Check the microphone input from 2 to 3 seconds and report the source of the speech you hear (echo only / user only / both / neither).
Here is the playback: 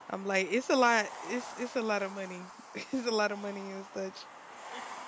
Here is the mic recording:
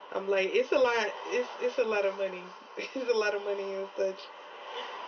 echo only